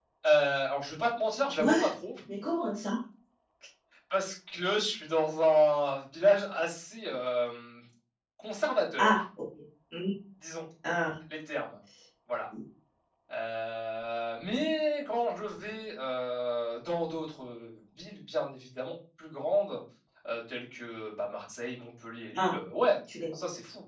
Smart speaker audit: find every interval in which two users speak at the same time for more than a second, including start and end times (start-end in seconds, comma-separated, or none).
none